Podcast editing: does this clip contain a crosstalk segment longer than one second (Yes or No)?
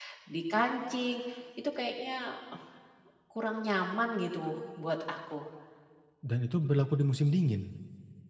No